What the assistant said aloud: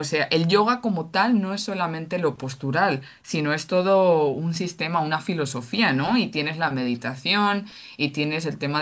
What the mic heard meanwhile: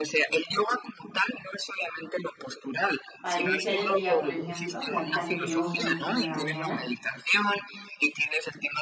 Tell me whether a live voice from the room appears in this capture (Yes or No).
Yes